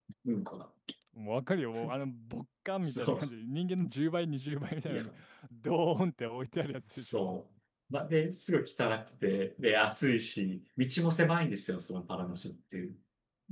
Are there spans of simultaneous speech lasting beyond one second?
No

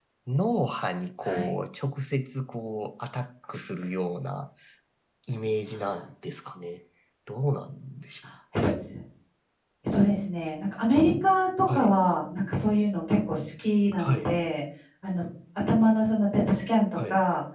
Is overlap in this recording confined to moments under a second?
Yes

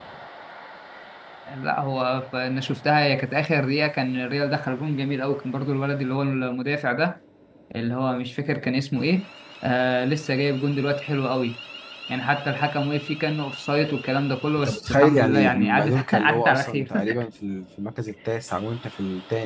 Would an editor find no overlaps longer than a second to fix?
No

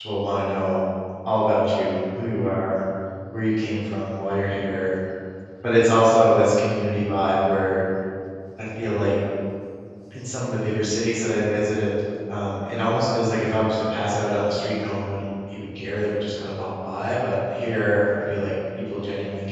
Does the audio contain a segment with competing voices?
No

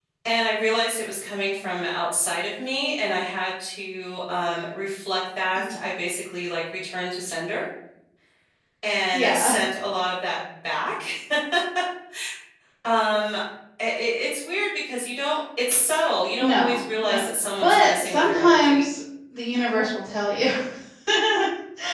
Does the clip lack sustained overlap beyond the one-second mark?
No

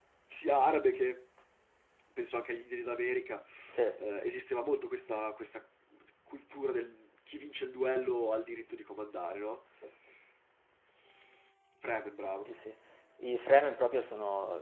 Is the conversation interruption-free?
Yes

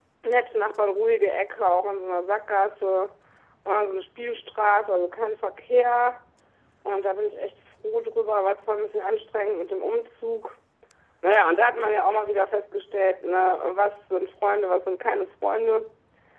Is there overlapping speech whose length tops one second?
No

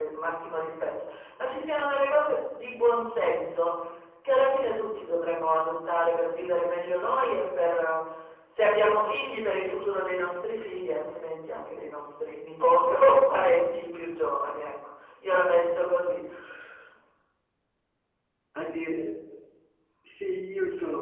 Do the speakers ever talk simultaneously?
No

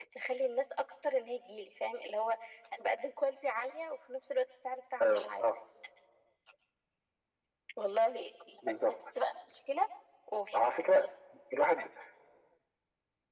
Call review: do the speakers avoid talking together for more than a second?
Yes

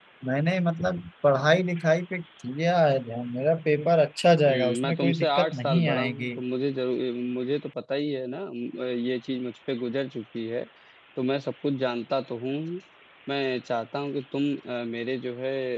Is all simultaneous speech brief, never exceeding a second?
No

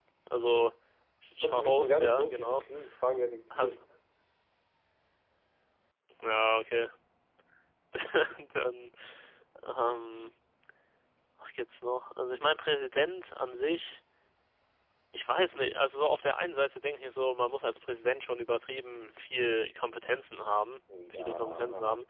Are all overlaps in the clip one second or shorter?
No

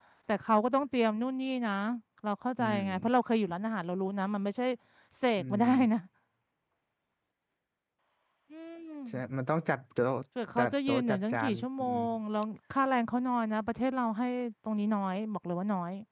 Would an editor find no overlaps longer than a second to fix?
No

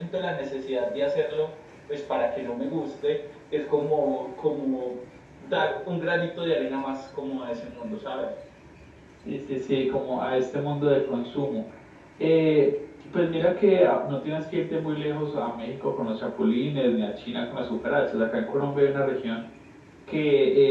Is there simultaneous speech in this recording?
No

